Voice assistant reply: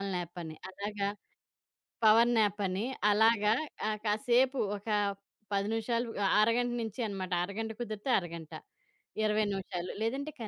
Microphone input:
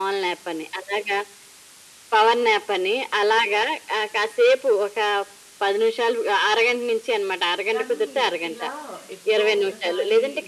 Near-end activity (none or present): present